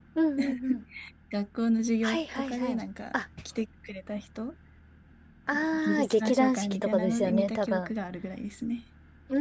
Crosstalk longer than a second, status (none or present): present